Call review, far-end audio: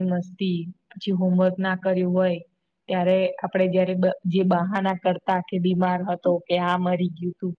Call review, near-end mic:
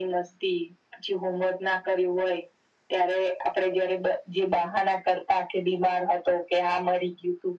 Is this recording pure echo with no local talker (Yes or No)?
Yes